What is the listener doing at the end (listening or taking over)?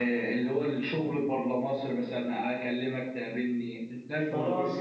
taking over